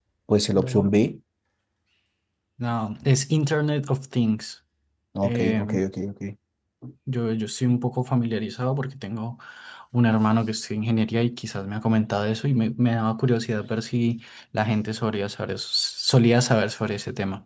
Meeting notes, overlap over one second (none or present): none